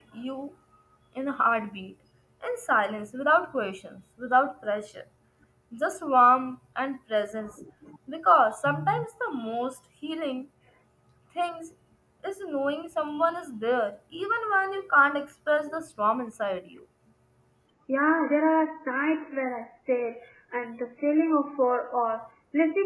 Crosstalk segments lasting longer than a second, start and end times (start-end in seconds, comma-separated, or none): none